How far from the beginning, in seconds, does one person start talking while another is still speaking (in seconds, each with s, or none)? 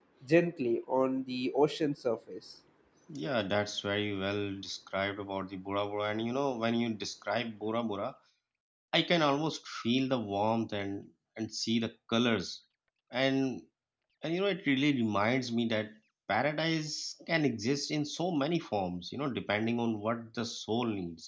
none